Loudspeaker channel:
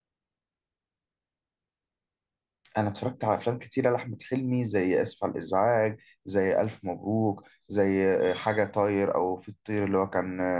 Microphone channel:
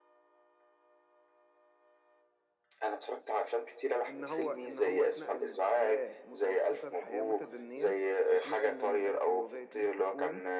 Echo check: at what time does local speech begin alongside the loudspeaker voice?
4.1 s

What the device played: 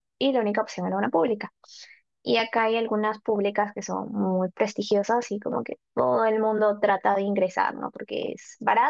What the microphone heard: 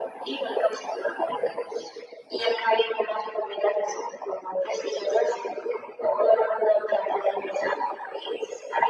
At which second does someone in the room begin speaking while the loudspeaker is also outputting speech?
none

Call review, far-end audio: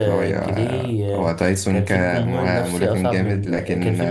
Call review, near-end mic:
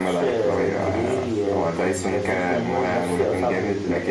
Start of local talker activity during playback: 0.5 s

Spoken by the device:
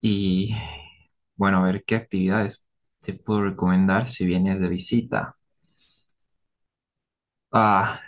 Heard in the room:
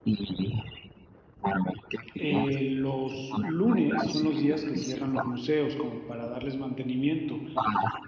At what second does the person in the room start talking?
2.2 s

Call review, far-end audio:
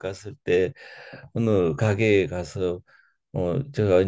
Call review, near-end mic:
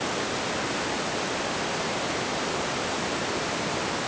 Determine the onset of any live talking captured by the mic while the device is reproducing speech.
none

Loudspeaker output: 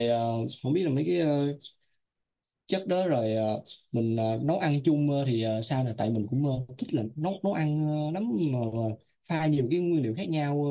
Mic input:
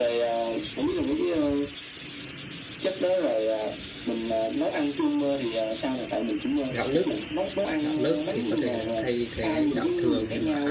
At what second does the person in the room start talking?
6.7 s

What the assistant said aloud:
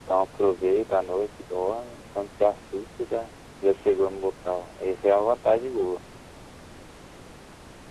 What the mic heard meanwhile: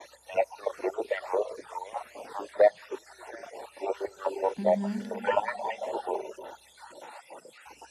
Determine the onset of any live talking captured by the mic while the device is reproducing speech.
4.6 s

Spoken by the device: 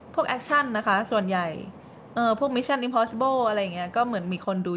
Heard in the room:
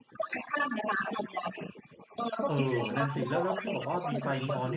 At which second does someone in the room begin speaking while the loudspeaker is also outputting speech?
2.4 s

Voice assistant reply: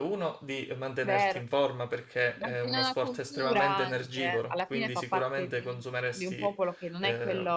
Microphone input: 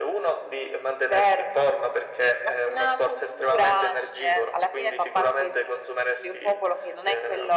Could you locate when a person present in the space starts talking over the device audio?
none

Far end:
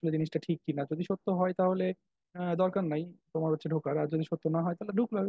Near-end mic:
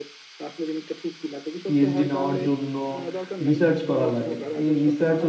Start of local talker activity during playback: 1.6 s

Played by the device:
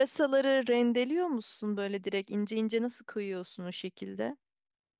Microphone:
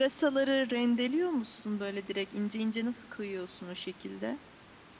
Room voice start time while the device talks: none

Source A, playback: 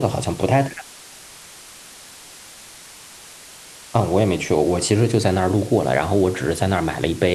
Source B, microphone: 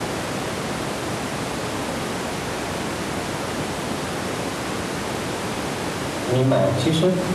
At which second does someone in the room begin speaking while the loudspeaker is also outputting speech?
6.2 s

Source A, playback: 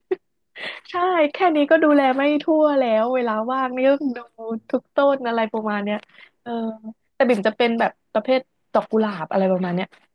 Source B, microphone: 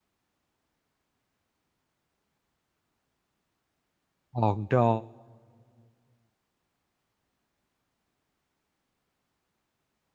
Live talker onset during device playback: 4.3 s

